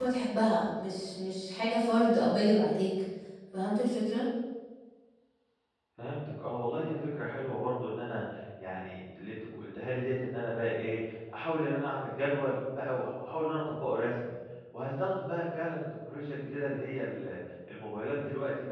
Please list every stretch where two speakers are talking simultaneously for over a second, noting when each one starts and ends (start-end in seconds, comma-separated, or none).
none